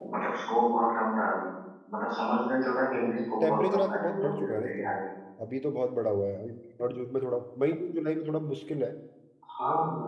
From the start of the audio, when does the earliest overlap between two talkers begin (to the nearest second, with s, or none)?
3 s